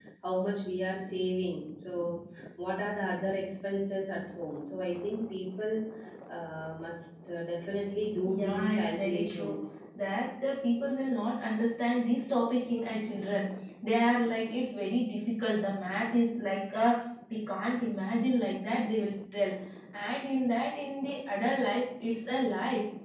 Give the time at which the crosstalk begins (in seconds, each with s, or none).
8.2 s